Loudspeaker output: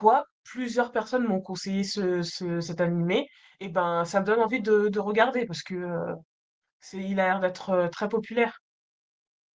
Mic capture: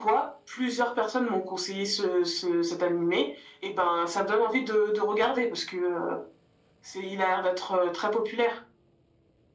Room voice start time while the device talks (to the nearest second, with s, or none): none